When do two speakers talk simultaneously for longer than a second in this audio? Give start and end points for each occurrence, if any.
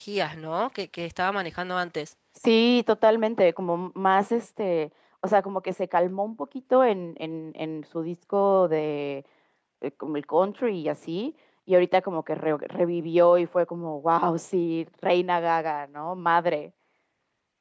none

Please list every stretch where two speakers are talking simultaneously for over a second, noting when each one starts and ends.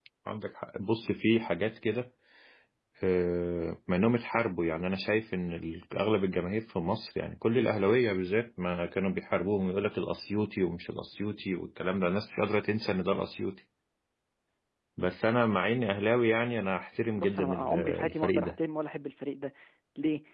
17.2-18.5

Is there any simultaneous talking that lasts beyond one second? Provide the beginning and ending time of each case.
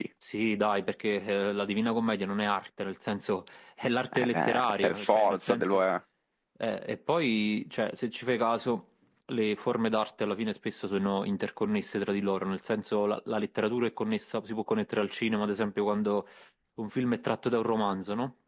4.1-5.8

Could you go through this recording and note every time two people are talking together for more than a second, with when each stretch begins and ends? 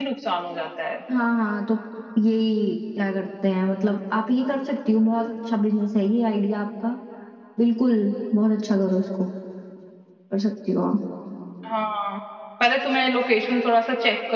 none

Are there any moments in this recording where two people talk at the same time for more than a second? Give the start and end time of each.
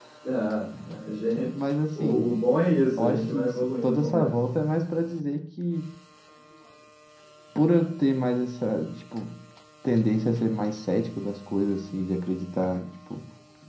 3.0-4.3

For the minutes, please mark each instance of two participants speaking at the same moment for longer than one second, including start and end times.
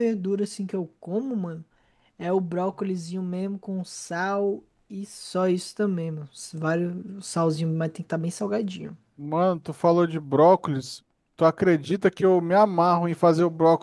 none

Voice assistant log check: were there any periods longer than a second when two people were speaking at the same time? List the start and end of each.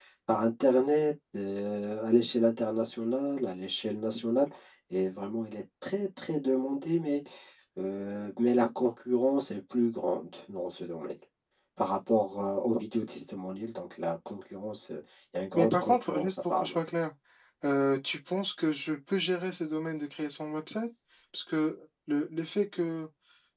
15.6-16.8

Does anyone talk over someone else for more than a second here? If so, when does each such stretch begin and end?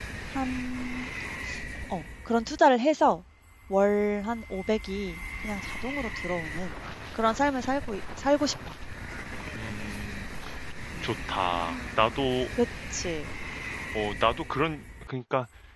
none

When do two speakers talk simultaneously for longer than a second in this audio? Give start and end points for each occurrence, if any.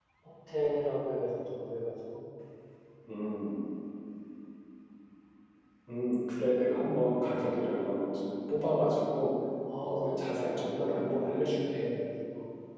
9.8-11.8

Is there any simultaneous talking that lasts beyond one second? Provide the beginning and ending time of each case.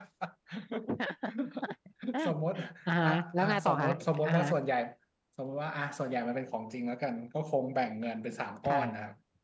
3.0-4.5

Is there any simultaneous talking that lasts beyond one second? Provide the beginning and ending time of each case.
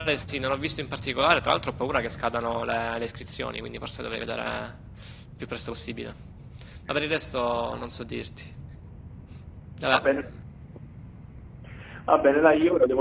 none

